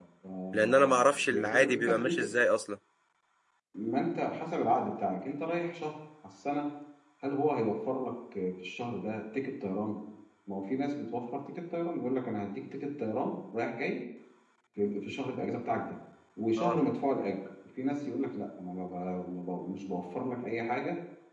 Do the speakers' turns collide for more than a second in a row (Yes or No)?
Yes